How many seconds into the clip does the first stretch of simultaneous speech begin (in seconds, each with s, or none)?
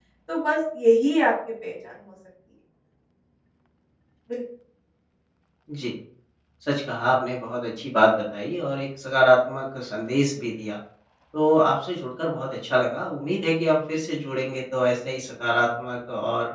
none